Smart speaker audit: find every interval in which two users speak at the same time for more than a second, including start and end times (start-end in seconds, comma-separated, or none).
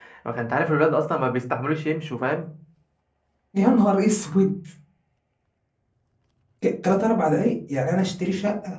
none